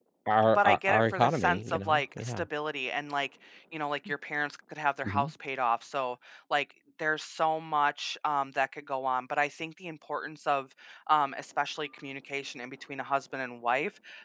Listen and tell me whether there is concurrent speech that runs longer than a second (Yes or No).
Yes